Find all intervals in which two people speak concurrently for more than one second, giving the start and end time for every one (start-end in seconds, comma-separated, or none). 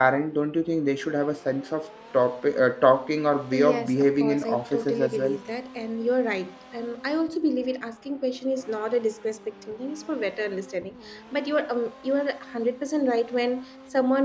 3.5-5.4